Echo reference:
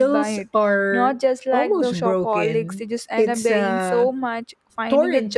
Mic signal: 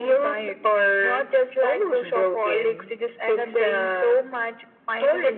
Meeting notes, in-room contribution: none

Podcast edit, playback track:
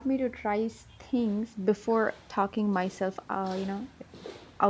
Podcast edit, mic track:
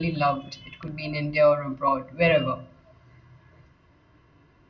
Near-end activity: present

